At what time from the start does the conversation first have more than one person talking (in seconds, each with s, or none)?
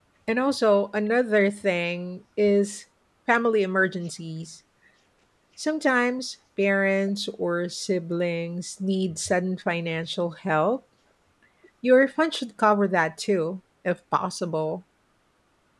none